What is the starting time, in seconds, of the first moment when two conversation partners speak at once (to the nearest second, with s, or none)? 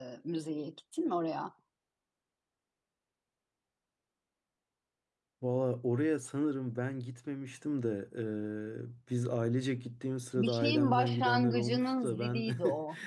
10 s